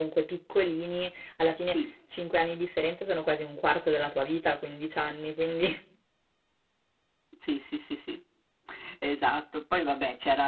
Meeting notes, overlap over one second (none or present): none